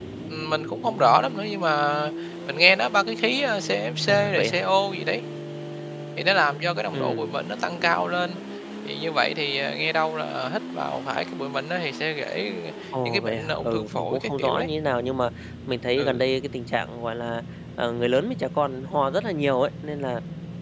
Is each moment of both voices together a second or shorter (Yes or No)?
No